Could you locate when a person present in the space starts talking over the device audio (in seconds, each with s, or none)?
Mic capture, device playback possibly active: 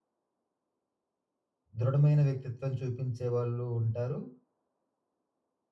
1.8 s